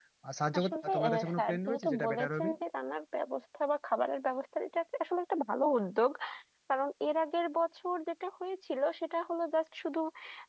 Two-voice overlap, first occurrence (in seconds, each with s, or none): 0.6 s